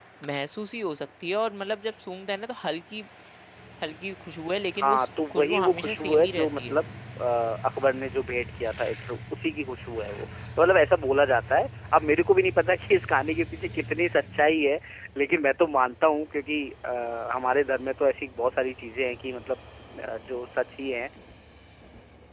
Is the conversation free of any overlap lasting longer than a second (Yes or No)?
No